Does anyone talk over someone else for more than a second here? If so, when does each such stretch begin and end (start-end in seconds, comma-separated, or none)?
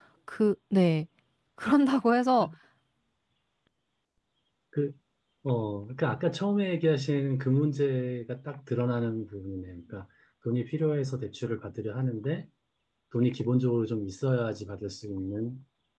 none